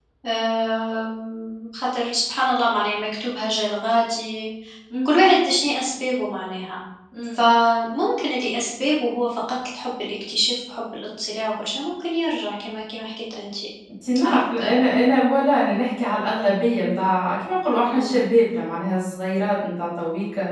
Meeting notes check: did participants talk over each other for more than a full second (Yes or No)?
No